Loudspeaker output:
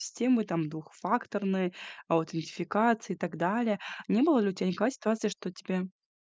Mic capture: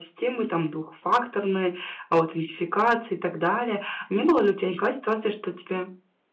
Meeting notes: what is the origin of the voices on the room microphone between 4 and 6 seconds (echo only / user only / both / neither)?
echo only